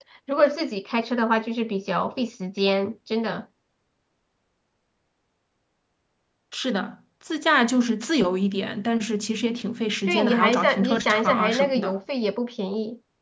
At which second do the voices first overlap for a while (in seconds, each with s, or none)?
10.1 s